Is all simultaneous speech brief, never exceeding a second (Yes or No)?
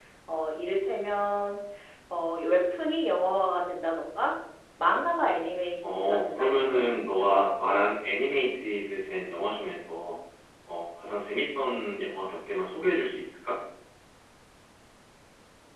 No